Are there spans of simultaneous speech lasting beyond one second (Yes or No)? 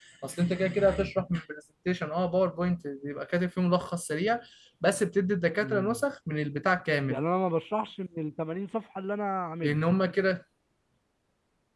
No